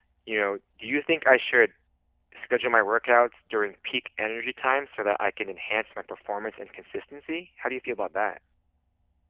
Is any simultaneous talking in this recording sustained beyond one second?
No

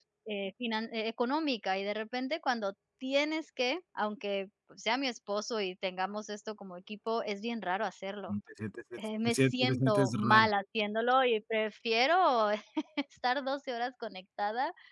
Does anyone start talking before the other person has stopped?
Yes, from 9.2 s

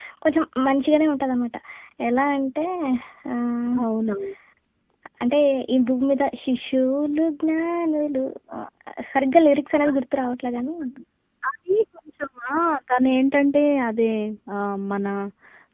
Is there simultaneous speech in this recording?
No

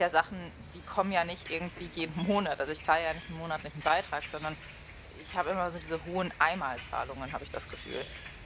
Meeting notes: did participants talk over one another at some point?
No

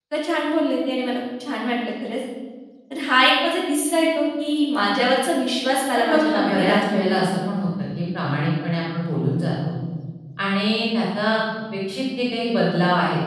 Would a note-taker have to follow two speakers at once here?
Yes, from 6.0 s

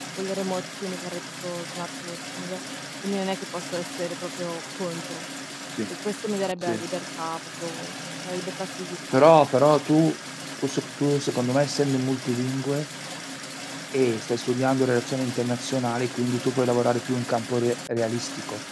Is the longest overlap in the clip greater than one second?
No

